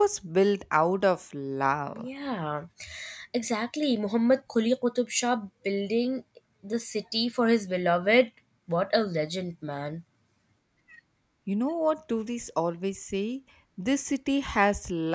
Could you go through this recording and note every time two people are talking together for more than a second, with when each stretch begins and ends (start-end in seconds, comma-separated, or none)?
none